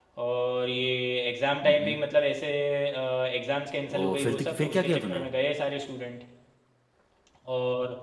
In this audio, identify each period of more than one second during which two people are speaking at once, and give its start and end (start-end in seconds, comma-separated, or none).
4.0-5.2